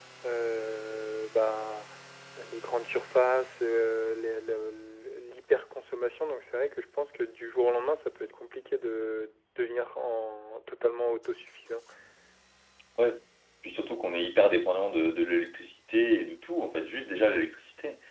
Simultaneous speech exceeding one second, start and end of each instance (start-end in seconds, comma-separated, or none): none